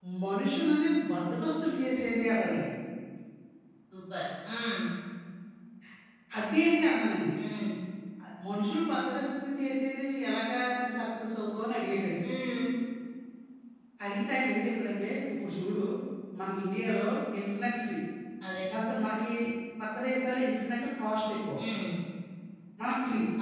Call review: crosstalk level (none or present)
none